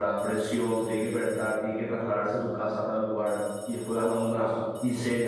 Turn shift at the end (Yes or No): No